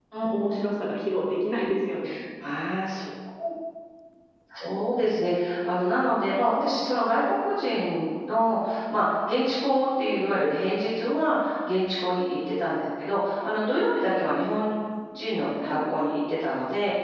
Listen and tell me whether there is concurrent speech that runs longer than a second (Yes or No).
No